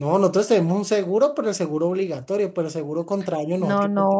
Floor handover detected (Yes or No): Yes